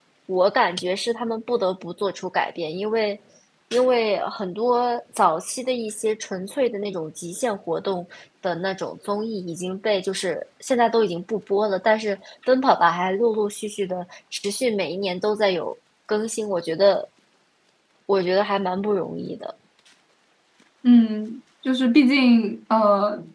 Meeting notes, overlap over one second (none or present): none